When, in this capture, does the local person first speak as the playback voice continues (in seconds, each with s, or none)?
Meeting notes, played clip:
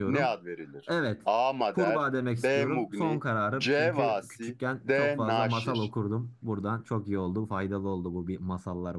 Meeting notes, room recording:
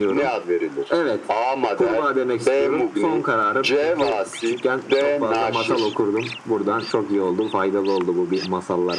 none